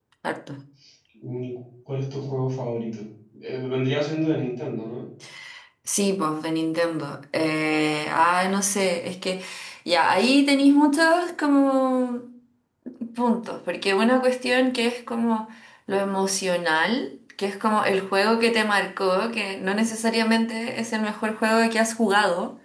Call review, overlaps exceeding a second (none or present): none